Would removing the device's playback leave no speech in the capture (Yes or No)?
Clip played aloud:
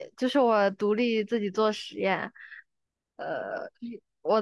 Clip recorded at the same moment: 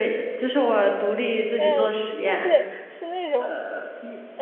No